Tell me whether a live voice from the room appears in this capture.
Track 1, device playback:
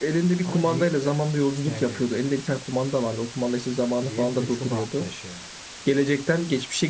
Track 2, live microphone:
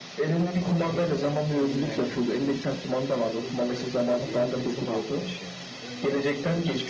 Yes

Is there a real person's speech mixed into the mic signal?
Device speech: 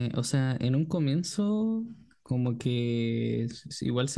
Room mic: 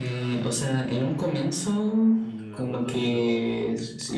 Yes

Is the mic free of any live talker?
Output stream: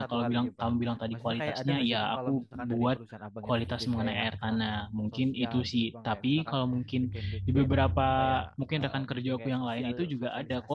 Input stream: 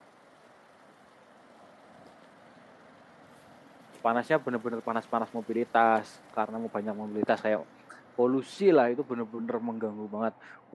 No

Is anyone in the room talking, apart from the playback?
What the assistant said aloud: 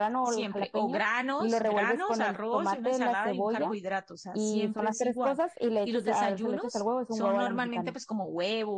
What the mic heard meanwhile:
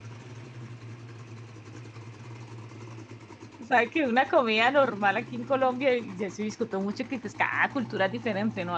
Yes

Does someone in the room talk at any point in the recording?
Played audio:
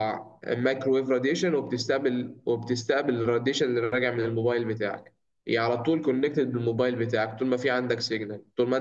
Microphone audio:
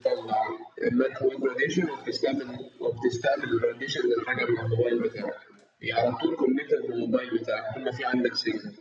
No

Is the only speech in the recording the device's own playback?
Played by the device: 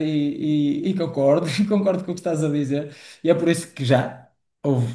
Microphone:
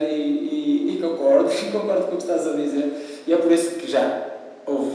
Yes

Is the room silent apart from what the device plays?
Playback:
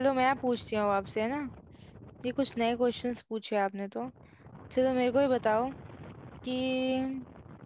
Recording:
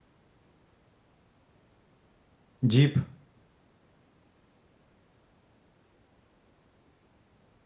No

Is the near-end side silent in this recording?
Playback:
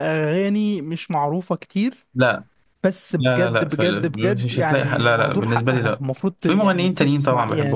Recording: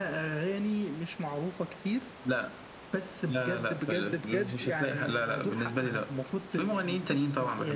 Yes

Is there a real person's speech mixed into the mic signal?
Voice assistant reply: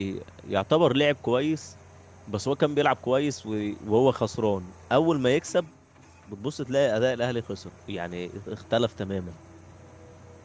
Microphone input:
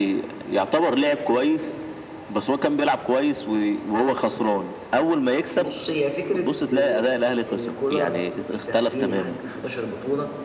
Yes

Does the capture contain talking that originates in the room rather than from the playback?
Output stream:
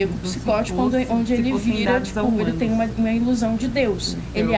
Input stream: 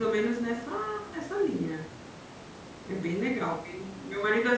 Yes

